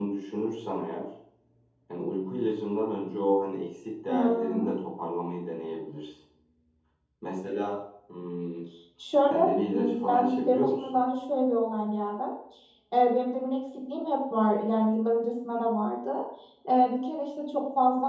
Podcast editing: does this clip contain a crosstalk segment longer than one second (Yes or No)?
Yes